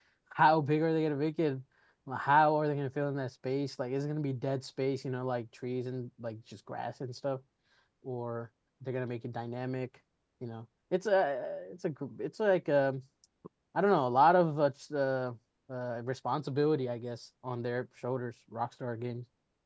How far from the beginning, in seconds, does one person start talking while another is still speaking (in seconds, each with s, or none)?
none